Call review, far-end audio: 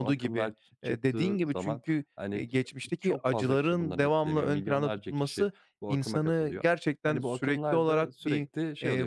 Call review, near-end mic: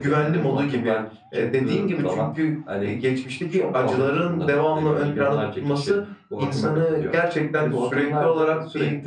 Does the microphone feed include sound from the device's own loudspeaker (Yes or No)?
Yes